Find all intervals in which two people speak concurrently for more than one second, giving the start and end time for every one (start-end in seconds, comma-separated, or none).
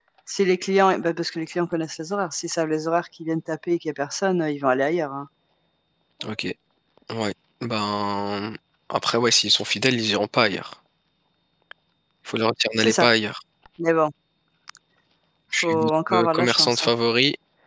15.6-16.9